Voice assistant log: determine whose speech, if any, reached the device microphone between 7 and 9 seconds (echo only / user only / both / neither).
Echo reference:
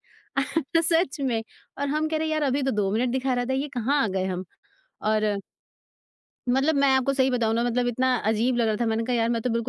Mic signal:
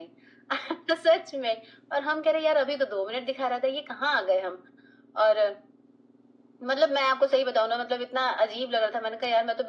echo only